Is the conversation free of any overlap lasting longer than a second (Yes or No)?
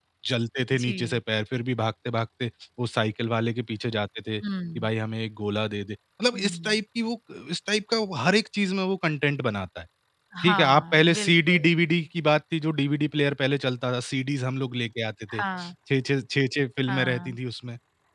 No